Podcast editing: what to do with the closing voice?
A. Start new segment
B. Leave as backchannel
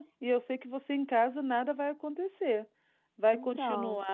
B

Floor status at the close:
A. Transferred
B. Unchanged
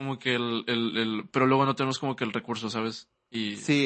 A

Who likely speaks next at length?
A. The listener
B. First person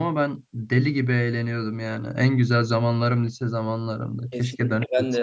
A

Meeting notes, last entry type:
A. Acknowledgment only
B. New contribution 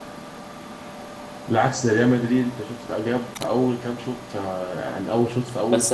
B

